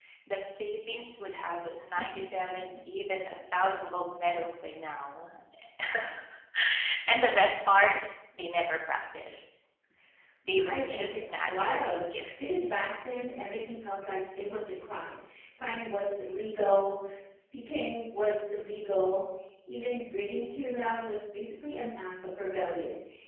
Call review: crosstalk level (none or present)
present